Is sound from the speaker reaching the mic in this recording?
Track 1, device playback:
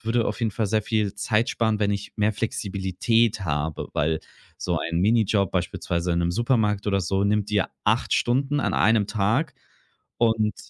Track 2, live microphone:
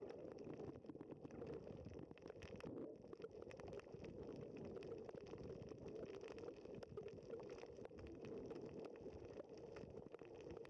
No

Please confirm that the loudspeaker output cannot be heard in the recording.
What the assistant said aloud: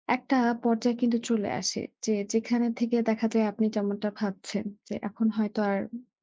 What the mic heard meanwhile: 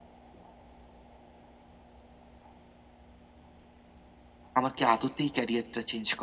Yes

